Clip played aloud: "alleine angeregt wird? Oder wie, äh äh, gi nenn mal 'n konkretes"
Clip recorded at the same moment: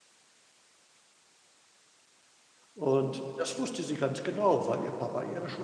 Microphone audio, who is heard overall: user only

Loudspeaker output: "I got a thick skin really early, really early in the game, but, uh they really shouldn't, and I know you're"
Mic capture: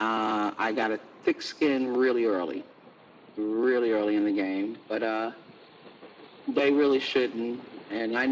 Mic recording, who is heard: echo only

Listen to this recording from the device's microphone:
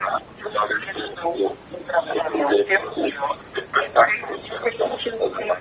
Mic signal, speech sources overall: echo only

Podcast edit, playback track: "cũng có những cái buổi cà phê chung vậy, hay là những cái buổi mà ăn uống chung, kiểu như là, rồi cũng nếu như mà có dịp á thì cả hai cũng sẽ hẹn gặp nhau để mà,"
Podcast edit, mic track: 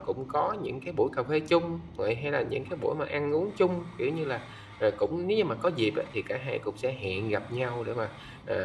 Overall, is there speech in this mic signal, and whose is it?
echo only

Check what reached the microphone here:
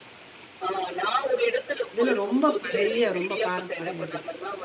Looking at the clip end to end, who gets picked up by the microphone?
both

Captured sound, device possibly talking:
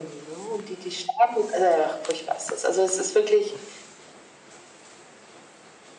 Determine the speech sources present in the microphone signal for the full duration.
echo only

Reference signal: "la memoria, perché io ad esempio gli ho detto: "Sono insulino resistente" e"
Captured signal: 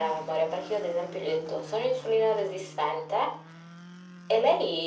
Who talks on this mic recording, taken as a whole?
echo only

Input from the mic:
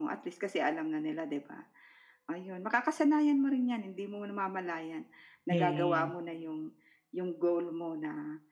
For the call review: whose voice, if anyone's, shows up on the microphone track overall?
both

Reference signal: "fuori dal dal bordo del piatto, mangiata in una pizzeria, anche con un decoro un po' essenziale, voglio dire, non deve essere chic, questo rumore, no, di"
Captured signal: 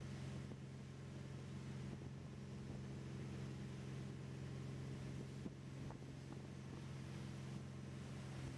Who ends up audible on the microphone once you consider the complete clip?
neither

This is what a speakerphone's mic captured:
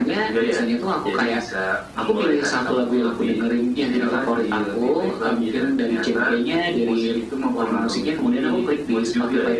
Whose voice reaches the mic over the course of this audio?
echo only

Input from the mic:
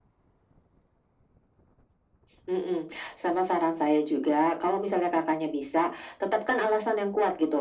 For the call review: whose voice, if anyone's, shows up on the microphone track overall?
echo only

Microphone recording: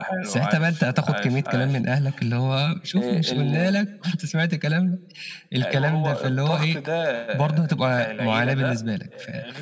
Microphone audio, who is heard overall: echo only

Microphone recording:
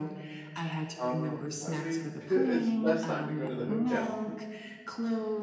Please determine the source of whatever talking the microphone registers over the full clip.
both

